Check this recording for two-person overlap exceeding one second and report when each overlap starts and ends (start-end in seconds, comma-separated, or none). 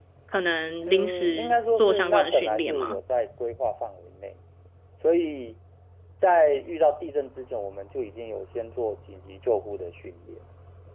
0.8-3.0